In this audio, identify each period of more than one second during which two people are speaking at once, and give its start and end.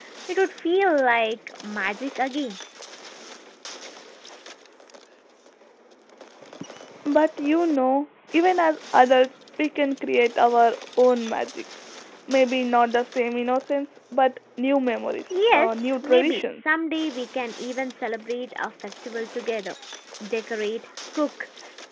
15.3-16.6

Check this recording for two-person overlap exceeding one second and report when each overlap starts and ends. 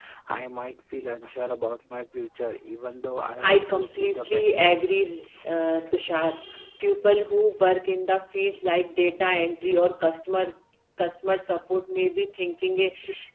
3.4-5.0

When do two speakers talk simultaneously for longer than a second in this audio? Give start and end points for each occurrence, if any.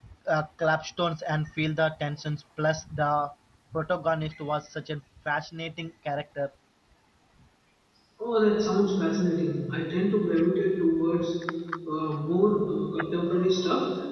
none

